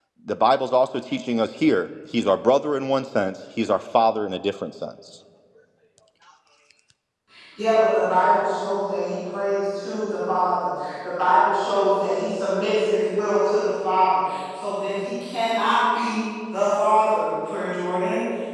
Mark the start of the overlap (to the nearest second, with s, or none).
none